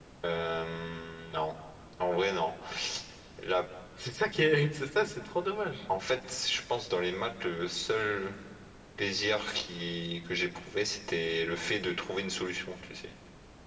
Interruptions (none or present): none